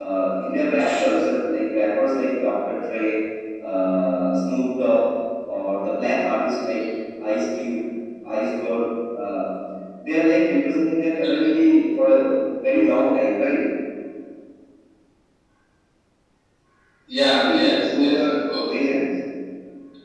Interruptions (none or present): present